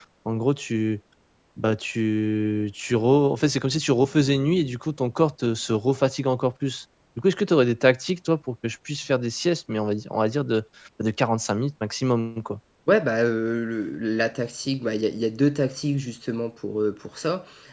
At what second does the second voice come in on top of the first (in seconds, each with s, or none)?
none